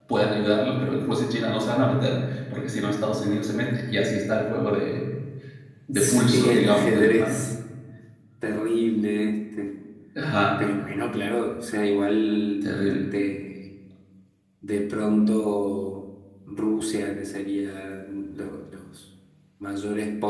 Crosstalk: present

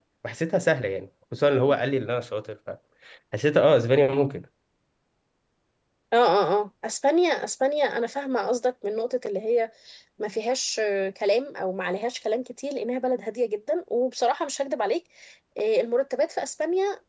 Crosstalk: none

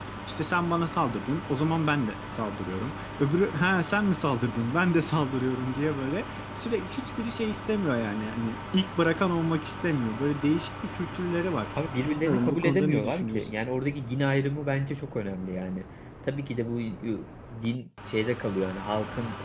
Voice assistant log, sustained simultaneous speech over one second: present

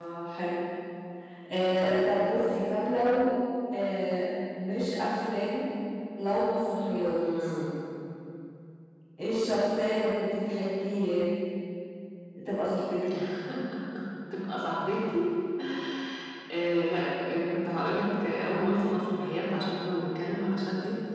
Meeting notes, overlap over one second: none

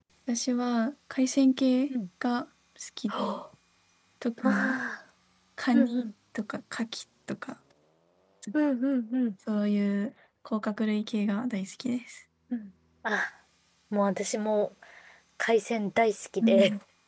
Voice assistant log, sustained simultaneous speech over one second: none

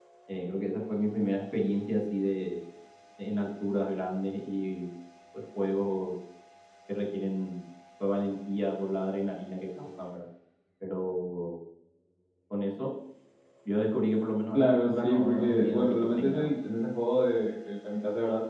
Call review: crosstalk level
present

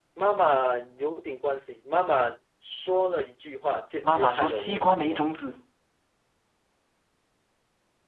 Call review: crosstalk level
present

